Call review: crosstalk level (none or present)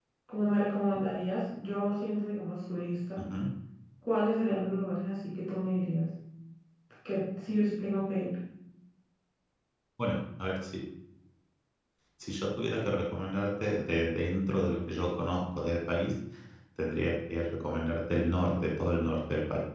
none